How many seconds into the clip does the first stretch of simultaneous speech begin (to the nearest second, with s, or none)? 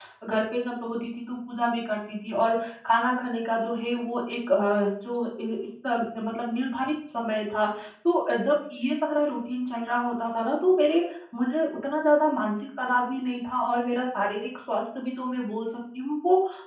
none